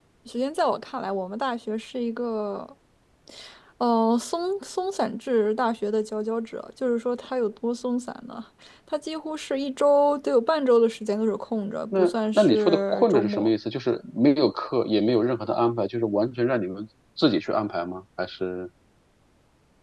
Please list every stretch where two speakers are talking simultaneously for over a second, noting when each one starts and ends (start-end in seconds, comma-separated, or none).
12.0-13.5